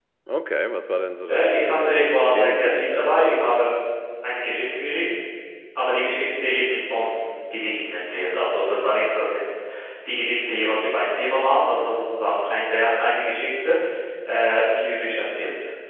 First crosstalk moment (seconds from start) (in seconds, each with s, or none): 1.3 s